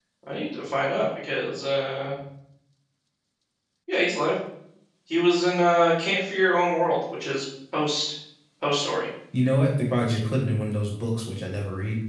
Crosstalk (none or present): none